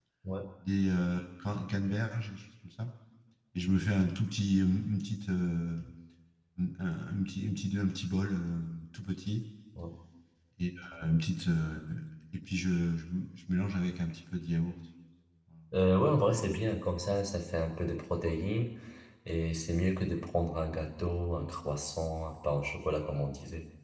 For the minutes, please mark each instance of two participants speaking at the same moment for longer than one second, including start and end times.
none

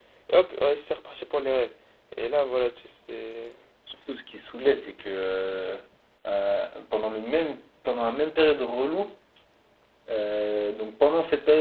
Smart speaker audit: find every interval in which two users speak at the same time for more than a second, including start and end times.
none

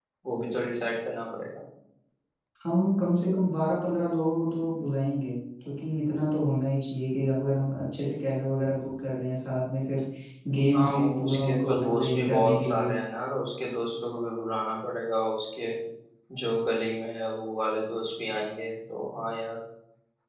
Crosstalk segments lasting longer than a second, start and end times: 10.7-12.9

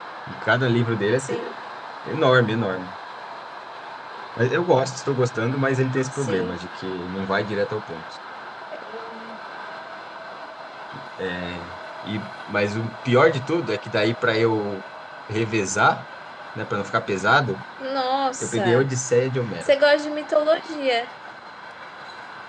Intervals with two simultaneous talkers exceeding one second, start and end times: none

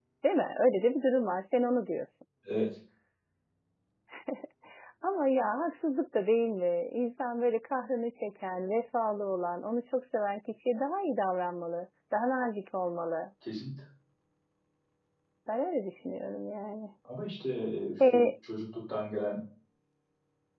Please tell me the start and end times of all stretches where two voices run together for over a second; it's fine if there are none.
none

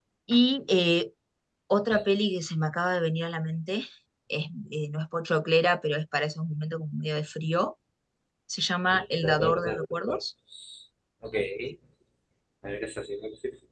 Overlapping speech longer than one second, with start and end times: 8.9-10.2

